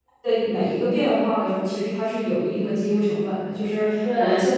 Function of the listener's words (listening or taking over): listening